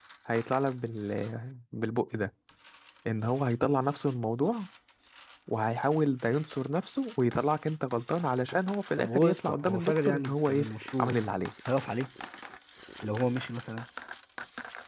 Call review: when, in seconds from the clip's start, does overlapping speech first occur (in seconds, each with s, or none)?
9.0 s